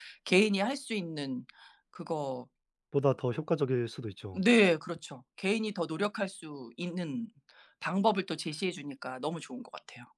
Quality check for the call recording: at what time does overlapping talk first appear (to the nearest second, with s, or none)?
none